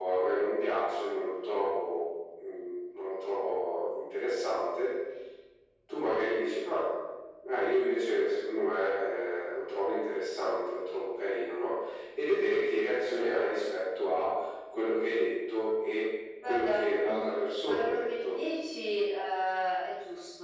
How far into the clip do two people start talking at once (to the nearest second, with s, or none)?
16 s